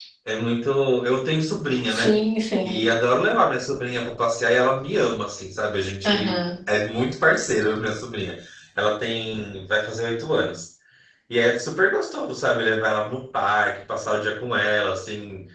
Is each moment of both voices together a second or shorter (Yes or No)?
Yes